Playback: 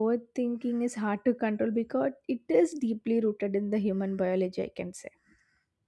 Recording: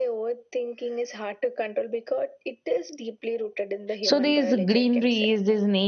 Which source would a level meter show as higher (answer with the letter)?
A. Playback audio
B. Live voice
B